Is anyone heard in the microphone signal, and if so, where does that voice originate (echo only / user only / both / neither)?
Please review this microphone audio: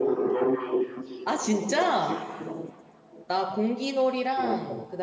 both